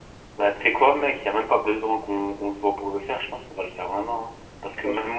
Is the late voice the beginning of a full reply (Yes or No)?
No